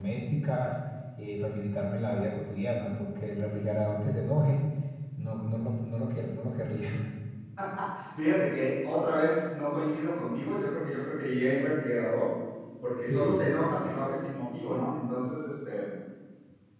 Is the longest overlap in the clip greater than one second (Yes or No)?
No